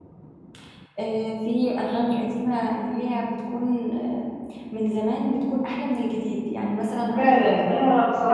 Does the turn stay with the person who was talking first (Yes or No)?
No